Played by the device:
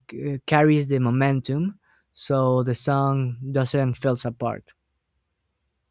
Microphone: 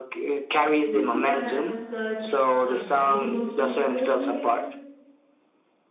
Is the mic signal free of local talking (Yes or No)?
No